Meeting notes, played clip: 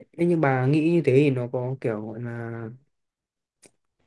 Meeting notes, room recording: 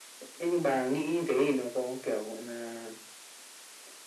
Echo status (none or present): present